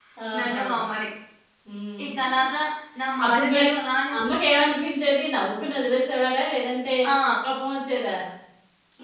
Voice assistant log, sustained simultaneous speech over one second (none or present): none